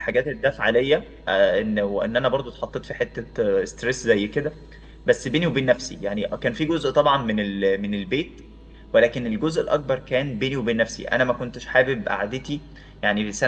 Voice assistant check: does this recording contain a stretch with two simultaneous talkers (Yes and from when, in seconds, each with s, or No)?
No